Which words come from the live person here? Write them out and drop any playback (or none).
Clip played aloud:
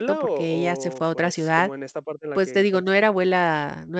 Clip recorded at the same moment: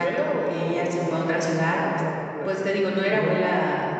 Ujú.